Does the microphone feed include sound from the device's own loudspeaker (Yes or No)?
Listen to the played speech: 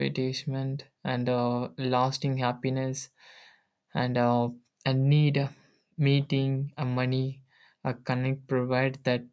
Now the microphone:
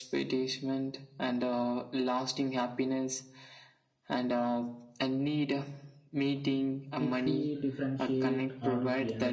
Yes